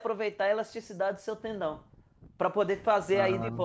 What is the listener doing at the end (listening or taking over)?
listening